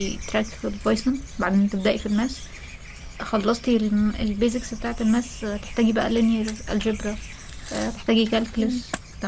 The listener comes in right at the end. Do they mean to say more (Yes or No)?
No